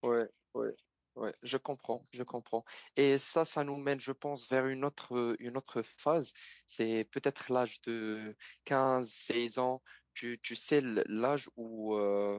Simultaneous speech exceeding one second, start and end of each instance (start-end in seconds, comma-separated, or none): none